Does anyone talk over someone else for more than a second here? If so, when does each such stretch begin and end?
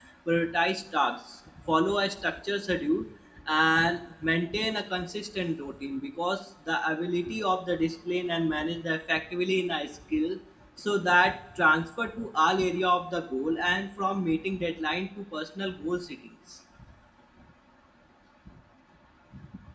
none

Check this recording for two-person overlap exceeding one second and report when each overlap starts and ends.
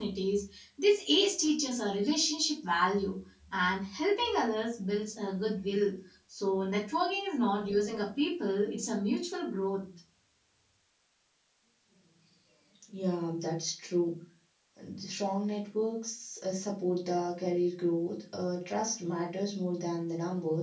none

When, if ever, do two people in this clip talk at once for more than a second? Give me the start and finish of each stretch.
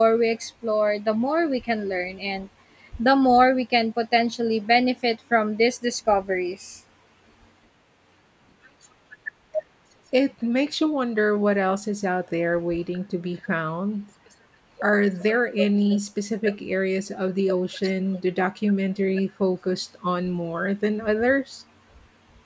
none

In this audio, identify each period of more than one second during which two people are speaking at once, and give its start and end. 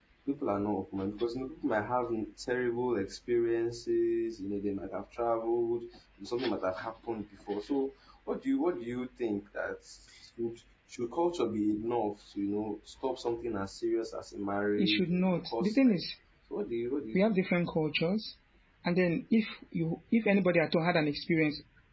14.8-16.0

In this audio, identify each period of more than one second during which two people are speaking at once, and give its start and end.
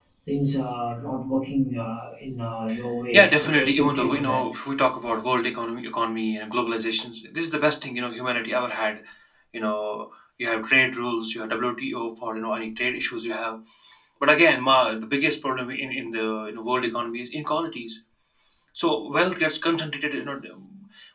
3.1-4.4

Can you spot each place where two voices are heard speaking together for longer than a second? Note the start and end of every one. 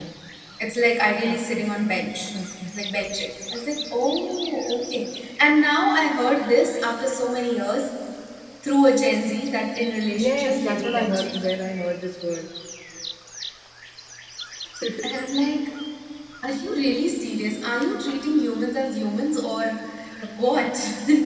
10.2-11.4

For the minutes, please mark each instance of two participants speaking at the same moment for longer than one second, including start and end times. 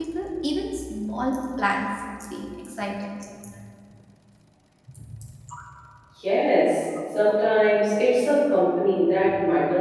none

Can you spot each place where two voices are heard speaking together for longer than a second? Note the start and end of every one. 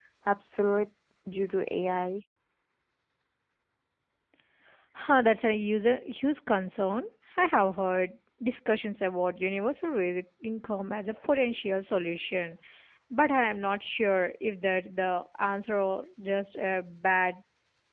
none

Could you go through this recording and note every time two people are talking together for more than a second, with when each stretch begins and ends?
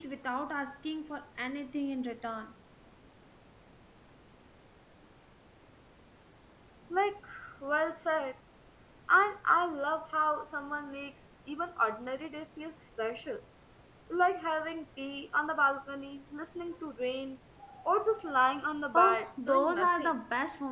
18.9-20.1

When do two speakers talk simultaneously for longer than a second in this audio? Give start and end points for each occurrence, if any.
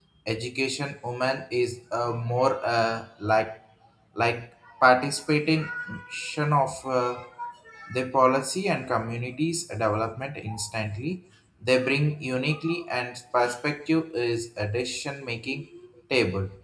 none

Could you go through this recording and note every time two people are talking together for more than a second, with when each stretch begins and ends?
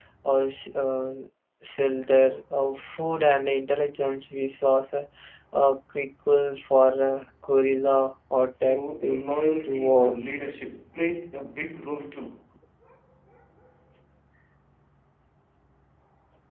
8.6-10.2

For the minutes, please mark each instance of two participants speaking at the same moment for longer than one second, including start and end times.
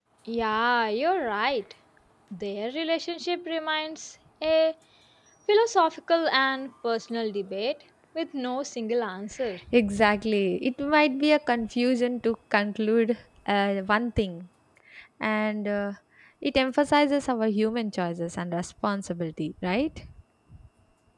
none

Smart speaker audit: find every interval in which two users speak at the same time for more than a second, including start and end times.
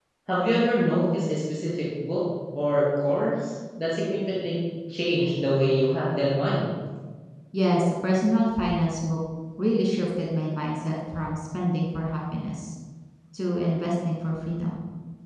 none

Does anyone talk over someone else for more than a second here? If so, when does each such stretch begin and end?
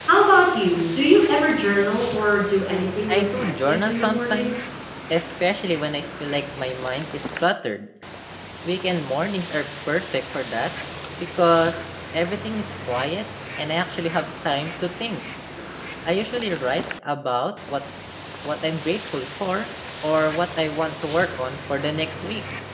3.1-4.5

